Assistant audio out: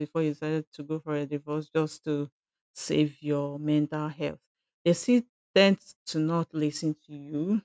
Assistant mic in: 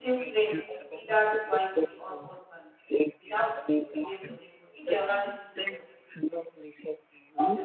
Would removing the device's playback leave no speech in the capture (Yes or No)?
No